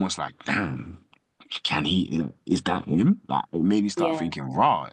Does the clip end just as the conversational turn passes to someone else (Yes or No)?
No